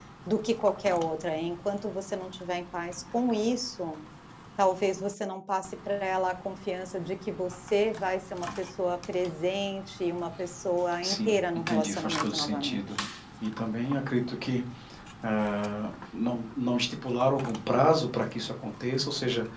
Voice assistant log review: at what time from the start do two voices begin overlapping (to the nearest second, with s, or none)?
11 s